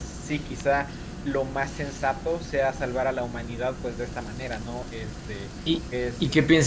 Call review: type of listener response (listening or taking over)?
taking over